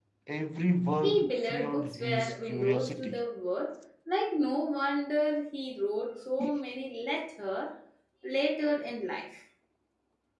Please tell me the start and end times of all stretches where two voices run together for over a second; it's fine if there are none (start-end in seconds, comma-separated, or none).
1.0-3.2